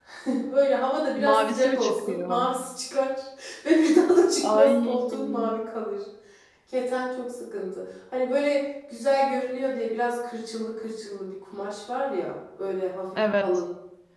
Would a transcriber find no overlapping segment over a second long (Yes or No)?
No